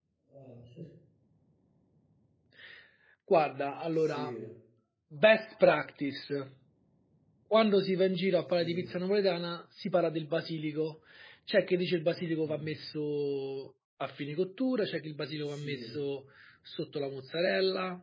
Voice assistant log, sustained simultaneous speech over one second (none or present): none